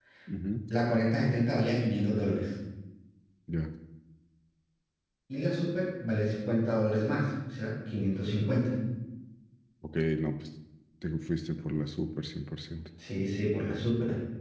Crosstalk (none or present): none